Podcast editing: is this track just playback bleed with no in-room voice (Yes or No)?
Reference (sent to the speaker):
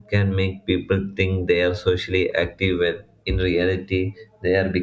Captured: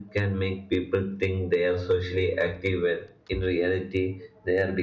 Yes